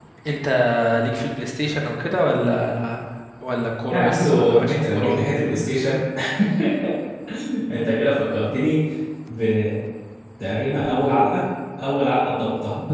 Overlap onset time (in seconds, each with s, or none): 3.9 s